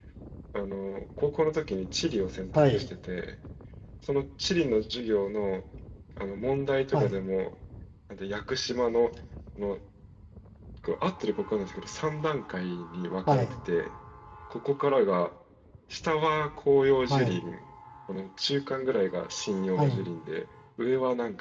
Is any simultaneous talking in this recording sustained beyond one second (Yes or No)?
No